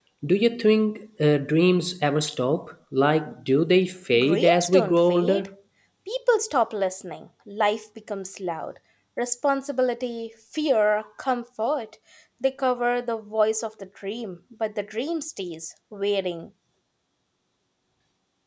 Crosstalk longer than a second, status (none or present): present